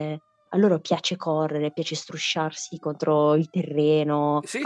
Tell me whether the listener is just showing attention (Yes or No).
Yes